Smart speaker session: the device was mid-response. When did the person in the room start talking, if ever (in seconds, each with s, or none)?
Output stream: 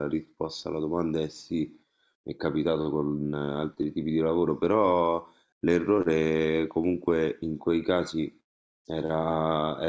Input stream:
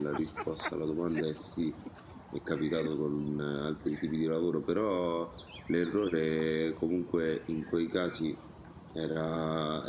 none